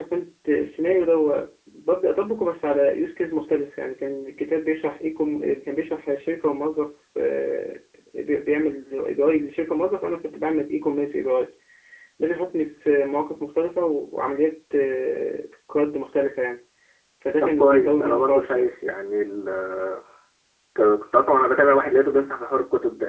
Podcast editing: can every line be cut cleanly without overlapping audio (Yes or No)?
No